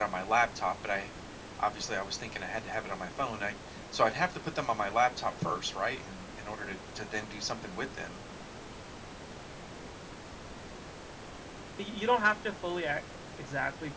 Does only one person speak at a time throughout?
Yes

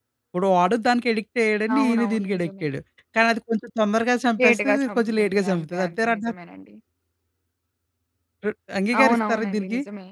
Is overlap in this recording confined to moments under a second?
No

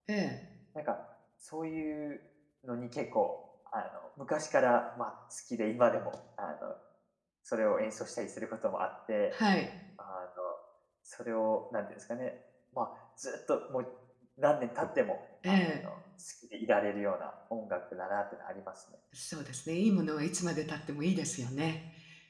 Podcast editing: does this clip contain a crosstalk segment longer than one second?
No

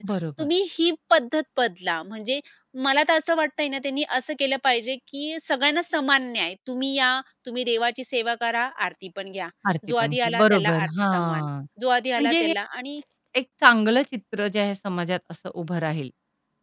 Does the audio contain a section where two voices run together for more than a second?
Yes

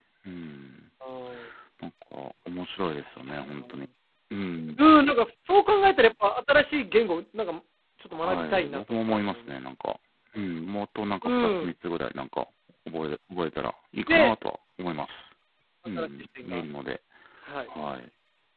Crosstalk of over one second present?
Yes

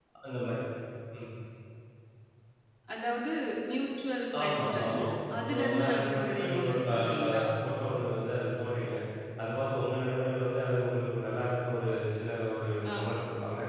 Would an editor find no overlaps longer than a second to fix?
No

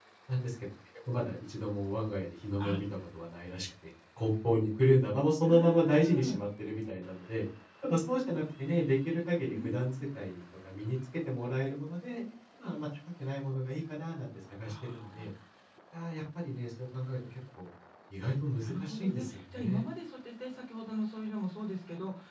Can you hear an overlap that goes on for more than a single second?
Yes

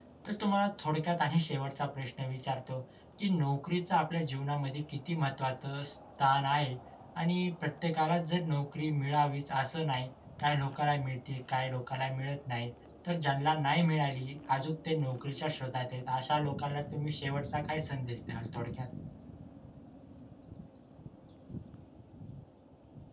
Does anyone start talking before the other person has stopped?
No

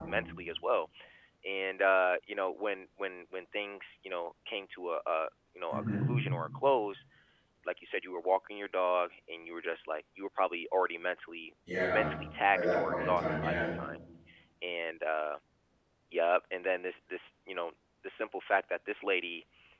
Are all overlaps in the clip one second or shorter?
No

